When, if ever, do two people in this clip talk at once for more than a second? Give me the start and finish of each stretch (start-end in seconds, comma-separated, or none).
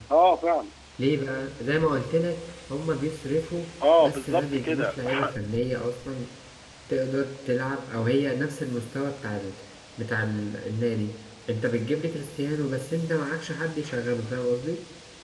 4.0-5.3